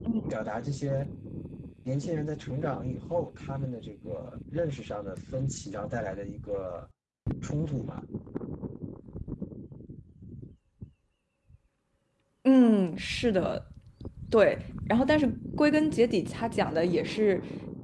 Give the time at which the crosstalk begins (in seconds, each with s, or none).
none